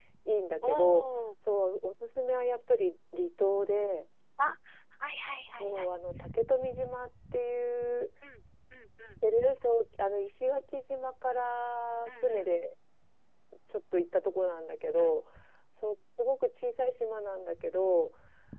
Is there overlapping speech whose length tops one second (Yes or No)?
No